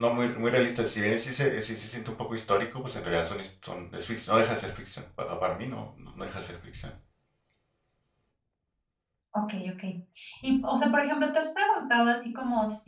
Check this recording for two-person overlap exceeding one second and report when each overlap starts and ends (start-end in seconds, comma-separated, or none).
none